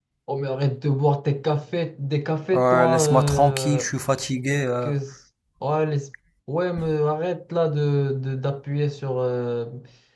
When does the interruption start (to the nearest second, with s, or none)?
3 s